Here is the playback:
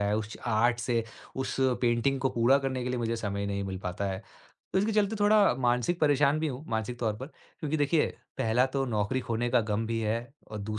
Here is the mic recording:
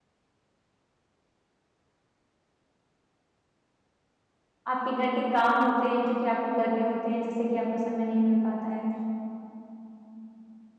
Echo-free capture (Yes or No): Yes